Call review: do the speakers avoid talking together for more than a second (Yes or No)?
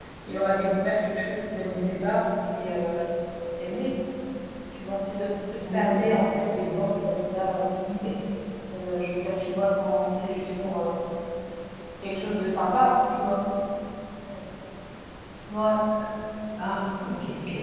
Yes